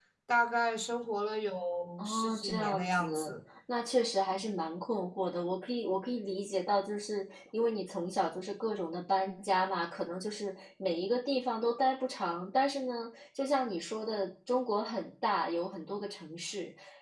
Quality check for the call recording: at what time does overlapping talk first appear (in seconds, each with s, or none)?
2.0 s